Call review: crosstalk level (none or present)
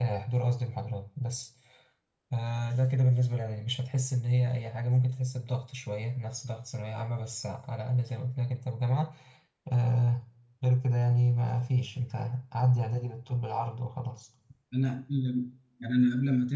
none